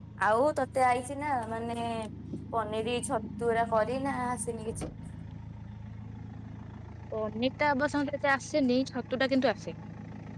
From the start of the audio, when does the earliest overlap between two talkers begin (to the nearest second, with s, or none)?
none